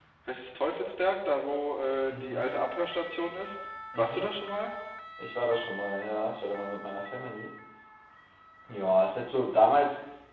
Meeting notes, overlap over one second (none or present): none